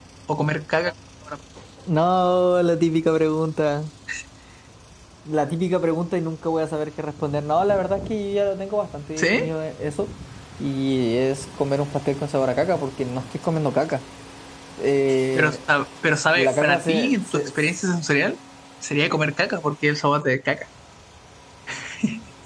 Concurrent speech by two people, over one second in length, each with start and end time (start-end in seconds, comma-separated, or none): 16.4-17.7